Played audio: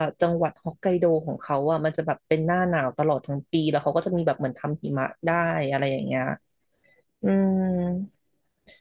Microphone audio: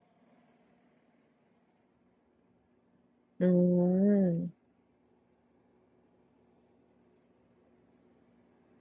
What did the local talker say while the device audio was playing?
อืม

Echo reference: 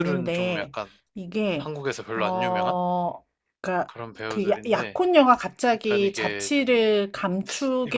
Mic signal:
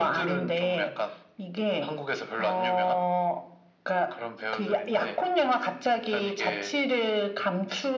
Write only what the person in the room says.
none

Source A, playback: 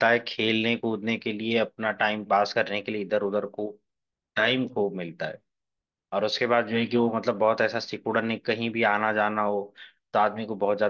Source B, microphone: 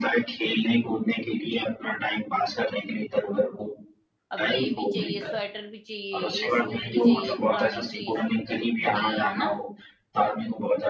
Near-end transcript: अब ये भी चाहिए स्वेटर भी चाहिए ये शूज भी चाहिए फलानी चीज कितनी है ना

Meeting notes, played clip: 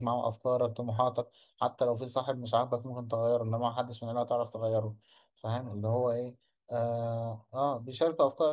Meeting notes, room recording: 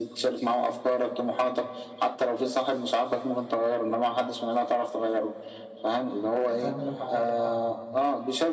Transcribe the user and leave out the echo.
هتعملوا حاجة آه.

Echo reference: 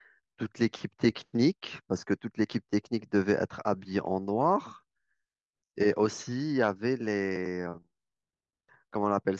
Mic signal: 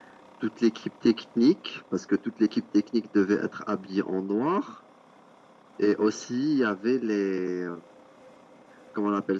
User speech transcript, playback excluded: none

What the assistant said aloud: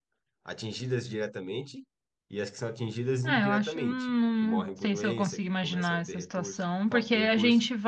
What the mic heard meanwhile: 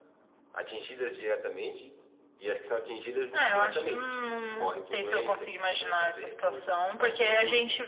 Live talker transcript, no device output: none

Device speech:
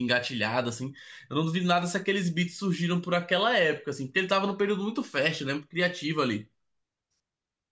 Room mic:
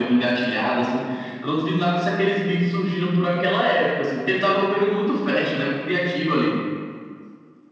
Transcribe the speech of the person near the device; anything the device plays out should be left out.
none

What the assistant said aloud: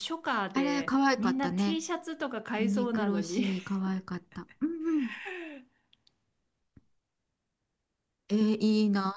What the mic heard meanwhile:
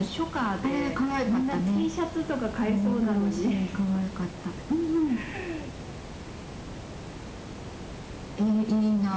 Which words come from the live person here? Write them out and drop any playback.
none

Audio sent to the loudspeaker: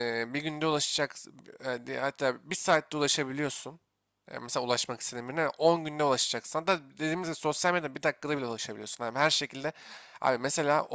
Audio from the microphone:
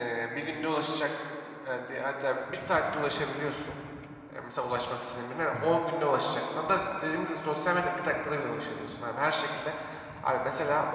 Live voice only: Hı hı.

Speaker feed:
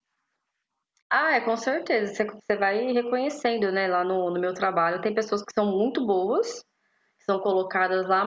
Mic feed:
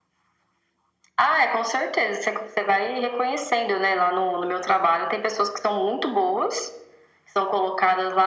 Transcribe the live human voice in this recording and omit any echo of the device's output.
none

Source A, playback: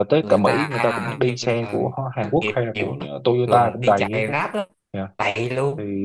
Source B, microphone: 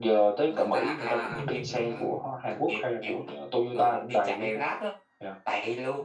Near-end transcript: ừ.

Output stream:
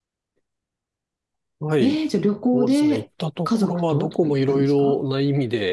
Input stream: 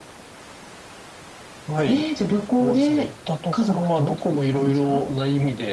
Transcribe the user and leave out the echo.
none

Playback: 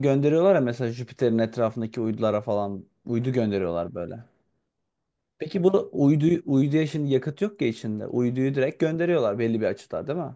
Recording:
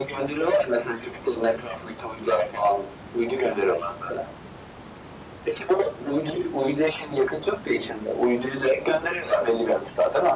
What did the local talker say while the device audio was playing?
none

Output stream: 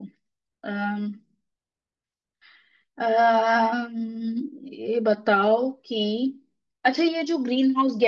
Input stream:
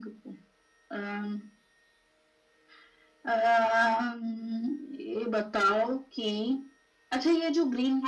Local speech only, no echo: none

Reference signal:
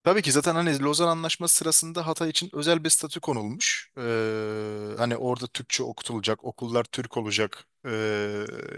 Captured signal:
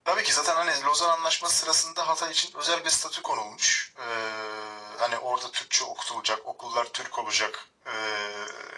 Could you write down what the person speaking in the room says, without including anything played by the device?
none

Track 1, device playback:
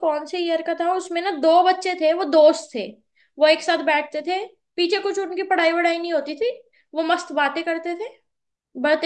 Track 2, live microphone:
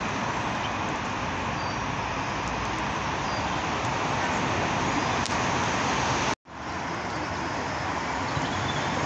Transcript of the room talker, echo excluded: none

